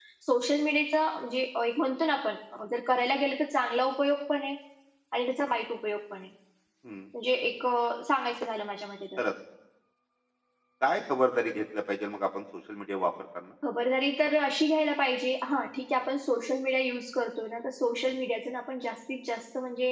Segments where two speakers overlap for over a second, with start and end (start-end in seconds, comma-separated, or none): none